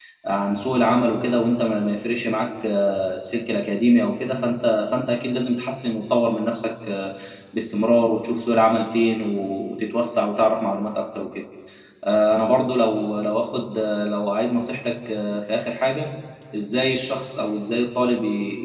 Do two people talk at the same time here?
No

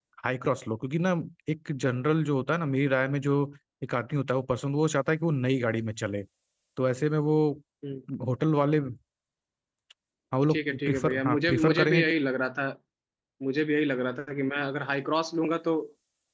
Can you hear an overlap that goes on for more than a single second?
Yes, from 10.5 s

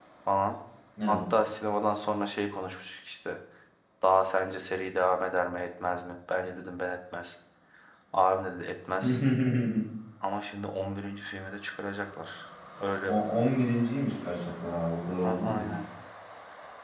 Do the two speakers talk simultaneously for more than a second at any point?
No

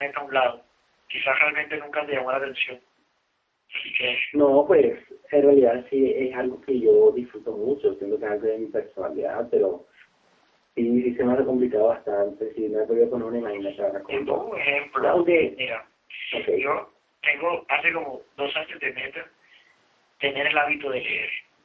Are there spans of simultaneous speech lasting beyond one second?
No

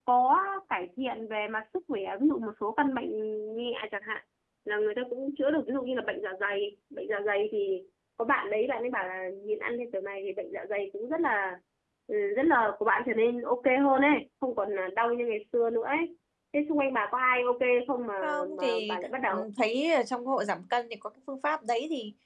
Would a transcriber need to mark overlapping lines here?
Yes, from 18.2 s

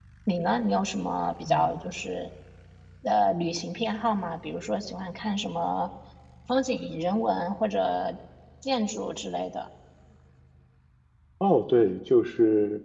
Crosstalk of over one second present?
No

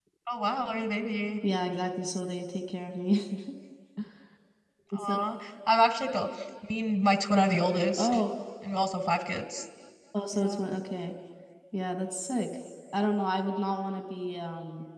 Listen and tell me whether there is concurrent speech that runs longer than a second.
No

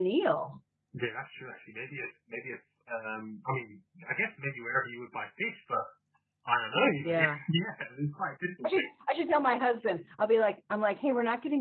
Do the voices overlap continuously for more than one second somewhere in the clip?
No

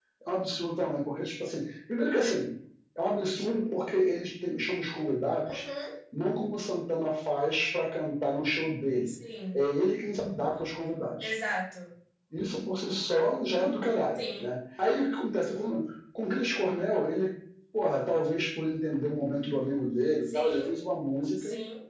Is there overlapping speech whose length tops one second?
No

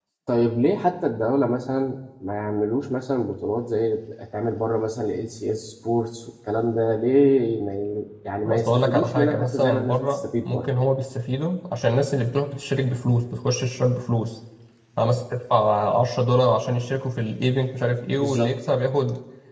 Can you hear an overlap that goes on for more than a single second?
Yes, from 8.5 s

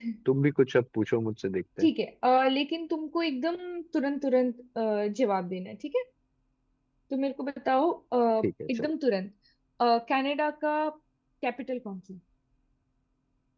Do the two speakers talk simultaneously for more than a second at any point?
No

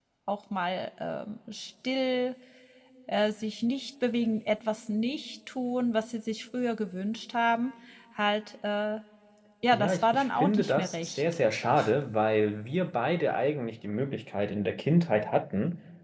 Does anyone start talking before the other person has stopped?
Yes, from 9.7 s

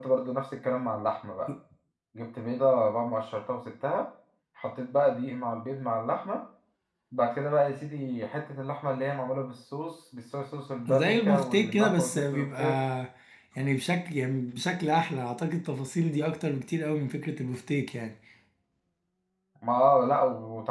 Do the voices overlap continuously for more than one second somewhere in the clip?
Yes, from 10.9 s

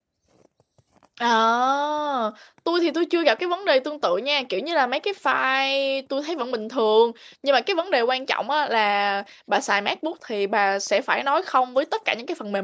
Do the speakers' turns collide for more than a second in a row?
No

